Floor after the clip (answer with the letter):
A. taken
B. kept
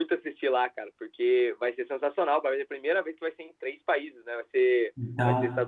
B